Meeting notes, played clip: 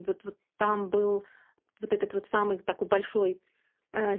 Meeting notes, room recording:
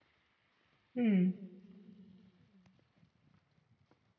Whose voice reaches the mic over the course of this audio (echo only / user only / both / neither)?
user only